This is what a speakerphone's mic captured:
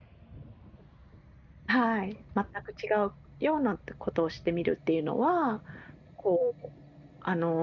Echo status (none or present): none